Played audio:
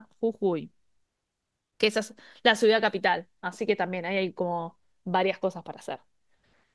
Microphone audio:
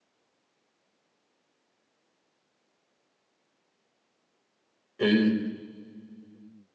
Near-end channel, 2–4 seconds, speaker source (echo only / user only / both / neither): neither